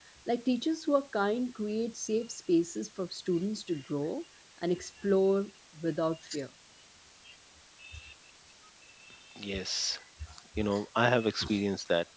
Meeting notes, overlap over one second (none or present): none